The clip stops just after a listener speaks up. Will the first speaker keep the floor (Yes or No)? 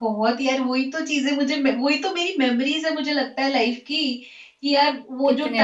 Yes